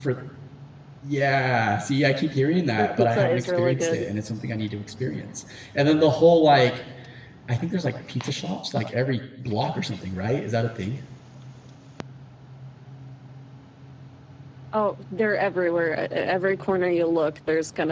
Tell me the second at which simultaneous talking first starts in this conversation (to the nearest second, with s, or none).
3 s